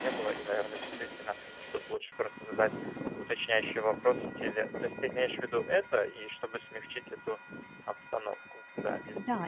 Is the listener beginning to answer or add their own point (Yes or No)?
Yes